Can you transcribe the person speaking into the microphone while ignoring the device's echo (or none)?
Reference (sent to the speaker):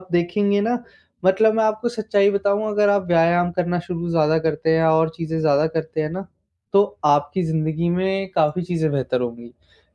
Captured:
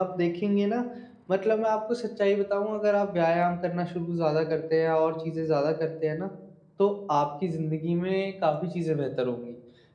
none